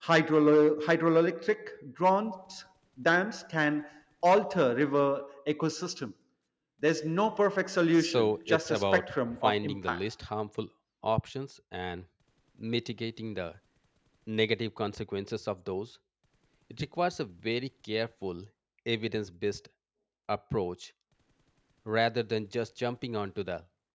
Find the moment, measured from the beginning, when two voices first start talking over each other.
8 s

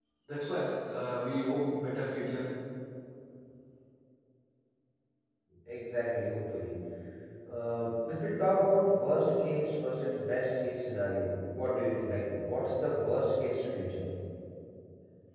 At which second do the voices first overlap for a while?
none

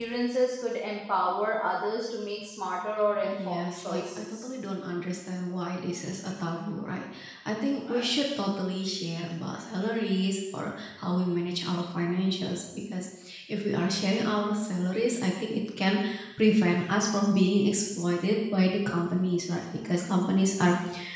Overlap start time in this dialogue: 3 s

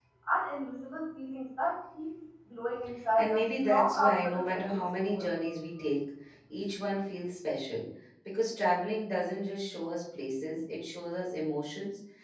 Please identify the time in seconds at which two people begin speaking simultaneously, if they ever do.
3 s

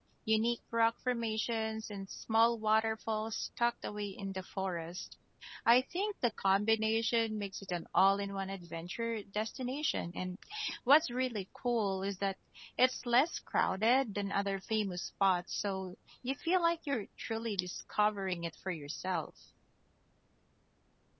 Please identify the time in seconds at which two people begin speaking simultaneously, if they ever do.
none

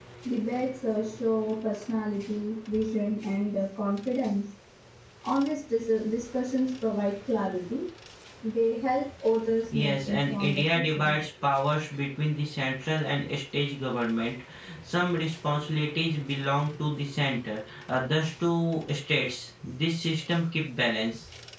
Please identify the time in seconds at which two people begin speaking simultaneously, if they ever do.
10 s

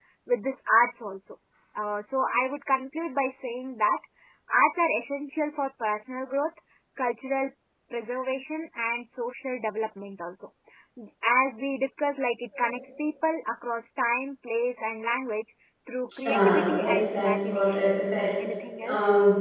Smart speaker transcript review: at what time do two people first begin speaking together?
16 s

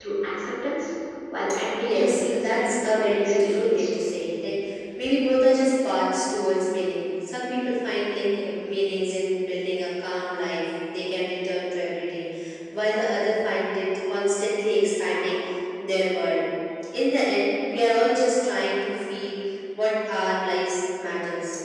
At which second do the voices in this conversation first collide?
2 s

